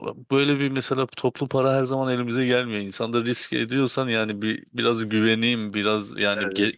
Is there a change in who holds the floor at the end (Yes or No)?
No